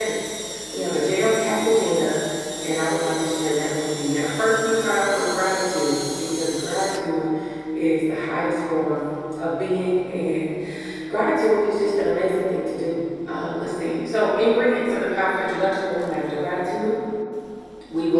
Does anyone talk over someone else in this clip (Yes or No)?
No